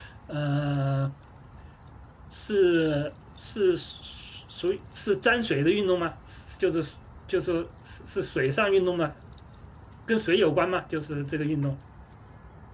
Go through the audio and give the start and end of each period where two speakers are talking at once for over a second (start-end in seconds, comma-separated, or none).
none